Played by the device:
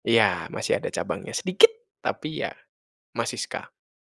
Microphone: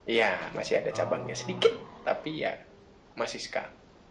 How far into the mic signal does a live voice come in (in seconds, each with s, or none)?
0.9 s